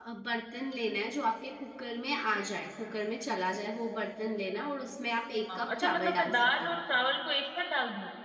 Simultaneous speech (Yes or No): Yes